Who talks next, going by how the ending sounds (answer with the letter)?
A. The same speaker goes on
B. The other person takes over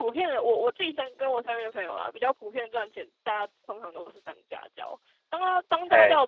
A